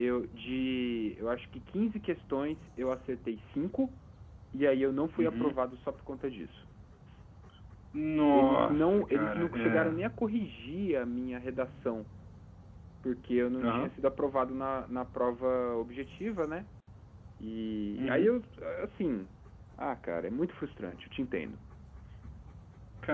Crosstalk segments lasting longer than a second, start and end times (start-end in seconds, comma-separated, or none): 8.3-10.0